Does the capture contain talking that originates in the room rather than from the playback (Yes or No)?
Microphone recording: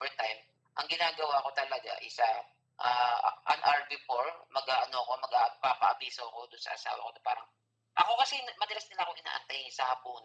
No